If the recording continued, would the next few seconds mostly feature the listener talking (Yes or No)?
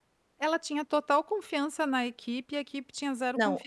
Yes